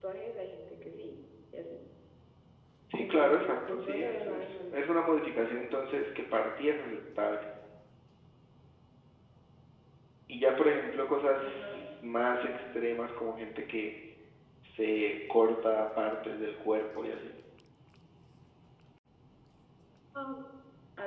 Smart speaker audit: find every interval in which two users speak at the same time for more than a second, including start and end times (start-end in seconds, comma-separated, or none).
3.0-4.8